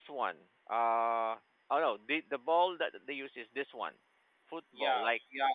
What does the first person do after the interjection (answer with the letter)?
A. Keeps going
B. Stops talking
B